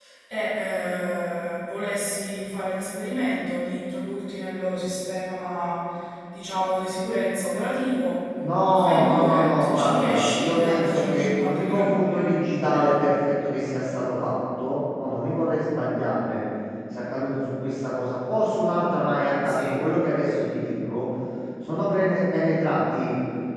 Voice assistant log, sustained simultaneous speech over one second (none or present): present